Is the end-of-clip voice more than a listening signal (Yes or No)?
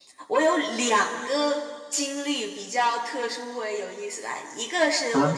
No